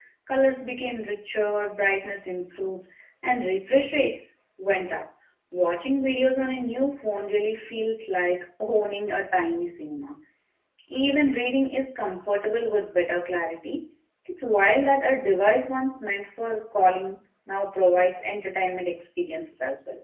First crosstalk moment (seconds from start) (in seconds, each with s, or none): none